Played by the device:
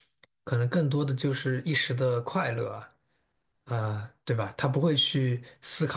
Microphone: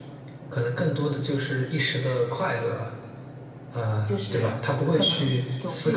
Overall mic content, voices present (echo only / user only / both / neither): both